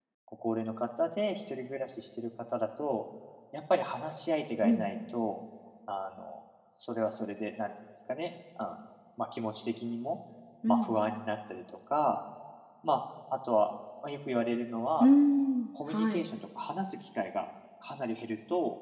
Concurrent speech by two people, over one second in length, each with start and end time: none

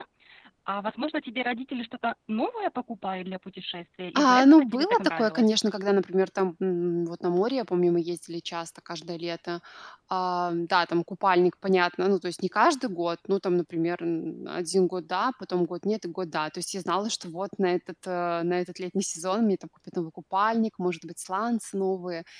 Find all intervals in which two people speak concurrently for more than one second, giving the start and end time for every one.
4.2-5.6

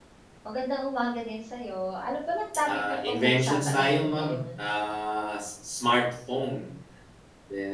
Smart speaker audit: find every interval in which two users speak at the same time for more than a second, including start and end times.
2.7-4.4

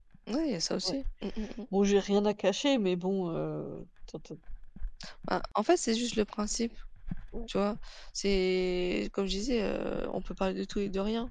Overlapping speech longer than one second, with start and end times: none

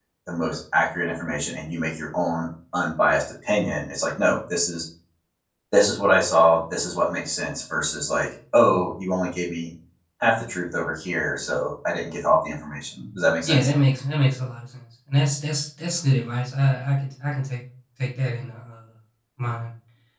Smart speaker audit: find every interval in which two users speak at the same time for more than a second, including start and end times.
none

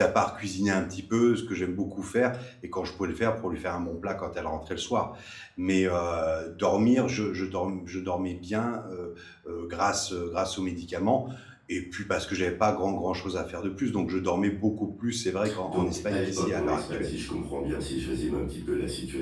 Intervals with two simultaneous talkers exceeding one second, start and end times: 15.6-17.1

